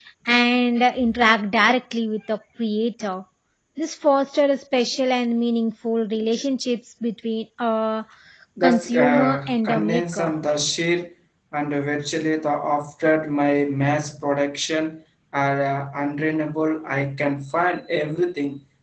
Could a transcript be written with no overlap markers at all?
No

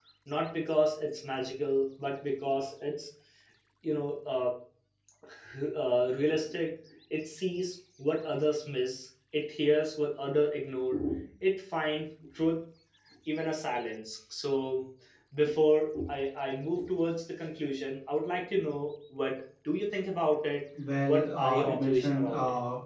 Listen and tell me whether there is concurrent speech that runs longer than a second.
Yes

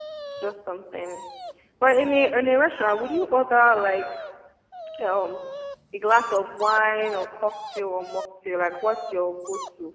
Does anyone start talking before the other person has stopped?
No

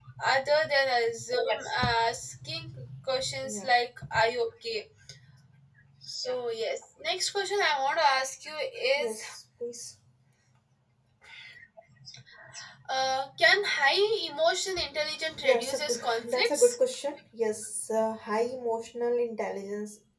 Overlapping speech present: Yes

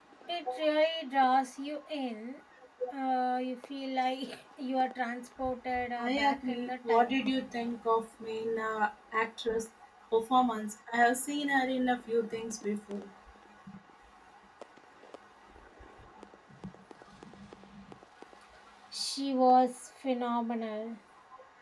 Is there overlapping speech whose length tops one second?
Yes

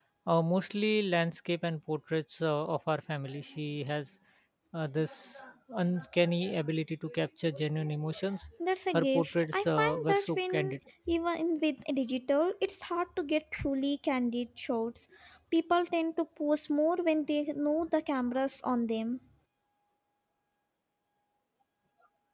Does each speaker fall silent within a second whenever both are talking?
No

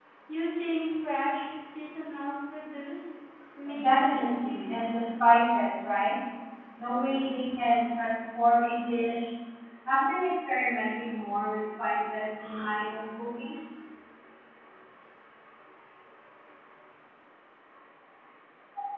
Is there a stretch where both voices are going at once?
Yes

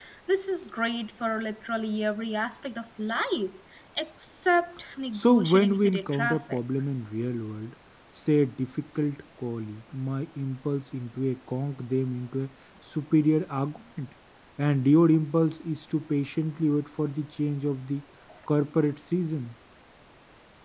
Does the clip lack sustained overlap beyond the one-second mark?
No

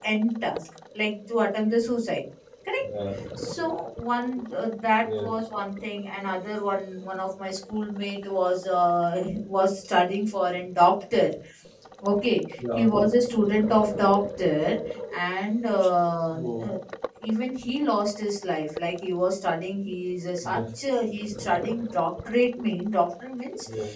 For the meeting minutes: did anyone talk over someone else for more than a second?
No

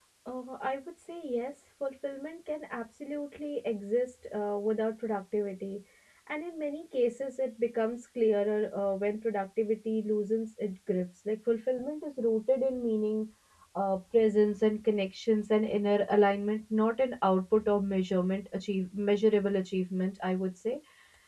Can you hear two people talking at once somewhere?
No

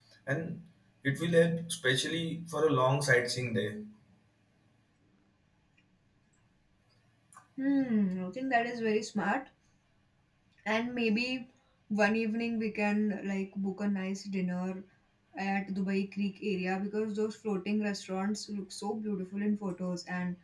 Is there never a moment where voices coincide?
Yes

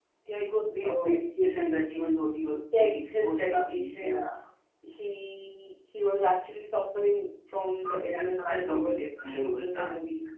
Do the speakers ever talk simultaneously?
Yes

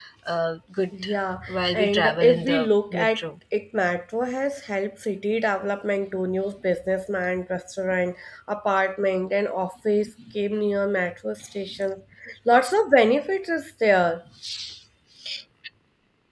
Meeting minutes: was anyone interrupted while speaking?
Yes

